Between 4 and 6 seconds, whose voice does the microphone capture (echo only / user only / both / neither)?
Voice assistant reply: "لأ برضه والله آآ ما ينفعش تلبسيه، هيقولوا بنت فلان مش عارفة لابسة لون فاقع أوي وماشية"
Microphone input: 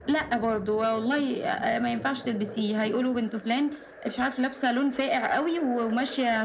echo only